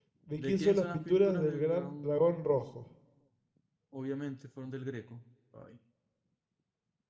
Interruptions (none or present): present